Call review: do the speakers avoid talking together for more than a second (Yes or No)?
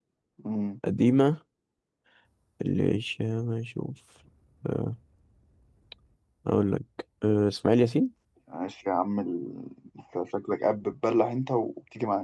Yes